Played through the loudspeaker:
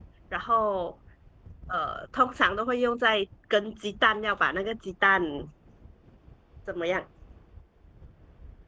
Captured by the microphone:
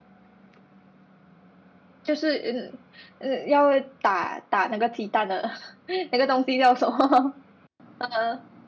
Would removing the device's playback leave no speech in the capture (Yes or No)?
No